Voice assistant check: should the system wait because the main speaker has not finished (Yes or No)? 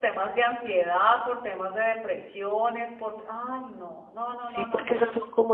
No